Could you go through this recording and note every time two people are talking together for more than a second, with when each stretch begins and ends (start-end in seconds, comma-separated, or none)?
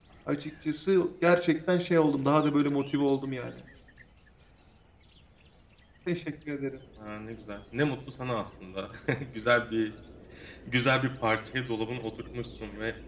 none